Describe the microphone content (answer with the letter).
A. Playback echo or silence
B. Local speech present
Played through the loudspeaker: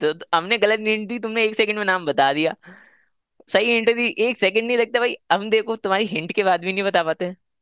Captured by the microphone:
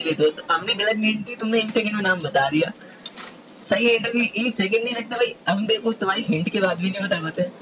A